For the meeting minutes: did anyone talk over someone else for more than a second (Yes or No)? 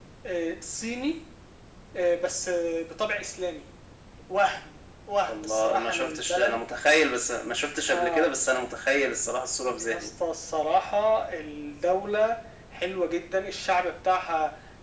Yes